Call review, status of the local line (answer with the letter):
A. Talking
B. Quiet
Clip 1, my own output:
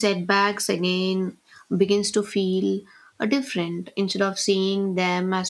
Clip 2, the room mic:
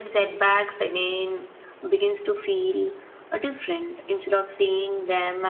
B